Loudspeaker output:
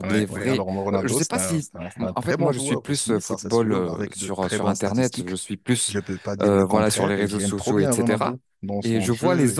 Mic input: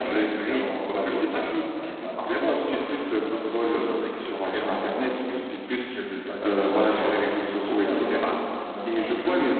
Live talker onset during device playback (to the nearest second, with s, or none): none